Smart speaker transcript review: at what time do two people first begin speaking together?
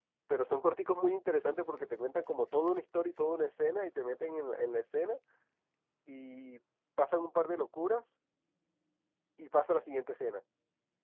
none

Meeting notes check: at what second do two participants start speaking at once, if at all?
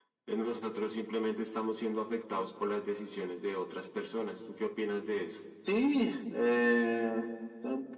none

